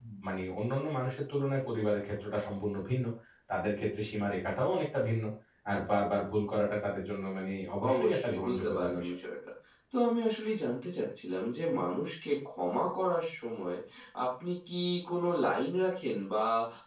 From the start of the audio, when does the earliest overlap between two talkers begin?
7.8 s

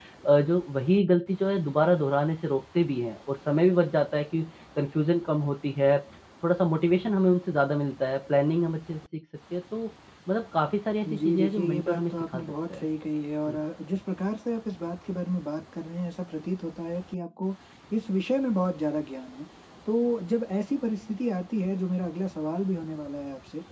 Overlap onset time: 11.0 s

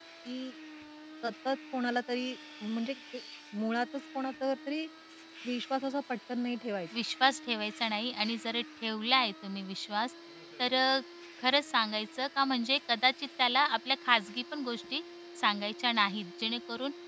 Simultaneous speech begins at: none

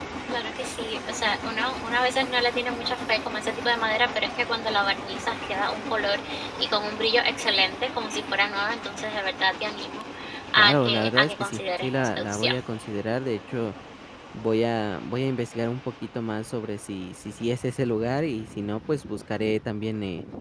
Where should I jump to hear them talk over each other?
10.6 s

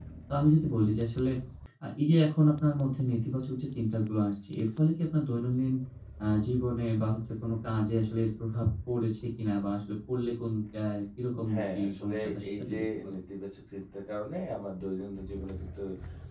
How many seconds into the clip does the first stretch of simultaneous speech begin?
11.5 s

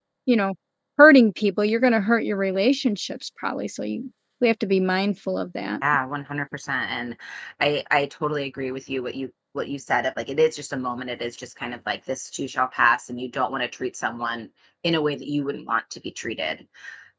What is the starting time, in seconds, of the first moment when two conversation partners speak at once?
none

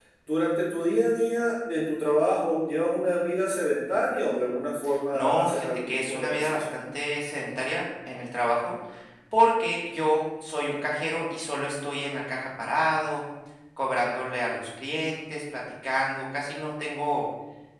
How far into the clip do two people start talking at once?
5.1 s

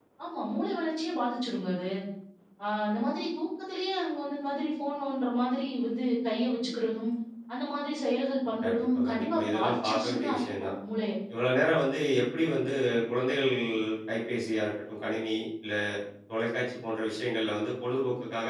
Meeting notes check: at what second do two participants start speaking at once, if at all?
8.6 s

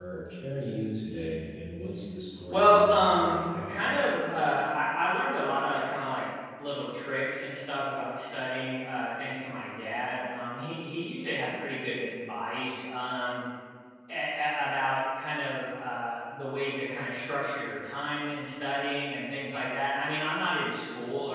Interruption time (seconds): 2.5 s

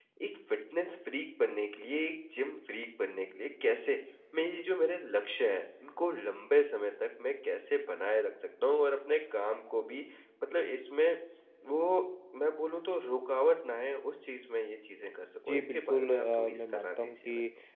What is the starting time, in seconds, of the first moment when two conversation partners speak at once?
15.5 s

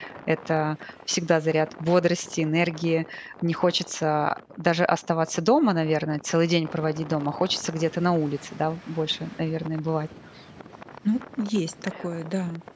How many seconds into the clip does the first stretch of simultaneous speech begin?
none

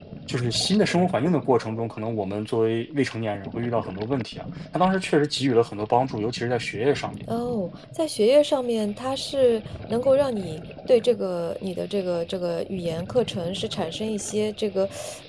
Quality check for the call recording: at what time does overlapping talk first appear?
none

